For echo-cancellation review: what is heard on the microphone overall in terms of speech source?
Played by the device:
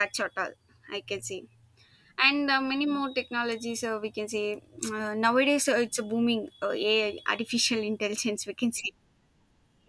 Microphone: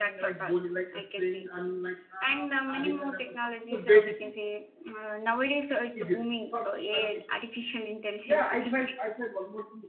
both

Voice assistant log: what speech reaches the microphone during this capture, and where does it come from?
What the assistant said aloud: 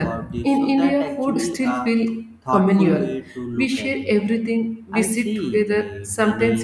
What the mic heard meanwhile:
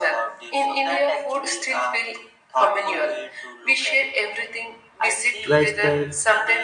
both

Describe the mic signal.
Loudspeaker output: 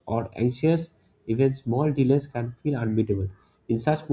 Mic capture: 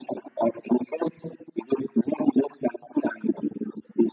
echo only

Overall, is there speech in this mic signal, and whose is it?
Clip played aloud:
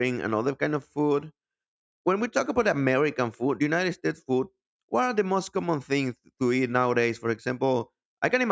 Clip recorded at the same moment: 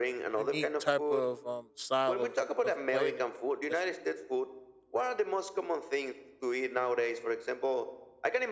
both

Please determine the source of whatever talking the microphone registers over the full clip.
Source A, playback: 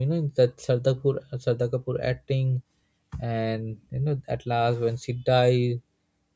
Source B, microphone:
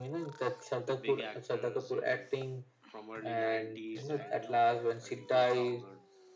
both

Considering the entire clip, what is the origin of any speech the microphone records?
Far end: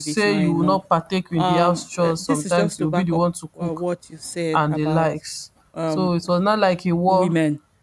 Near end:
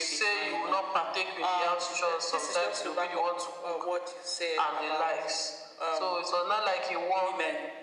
echo only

